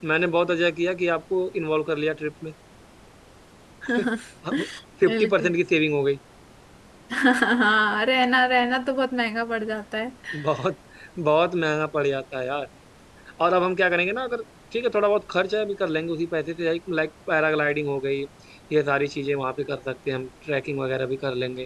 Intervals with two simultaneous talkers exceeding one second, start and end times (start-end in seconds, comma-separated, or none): none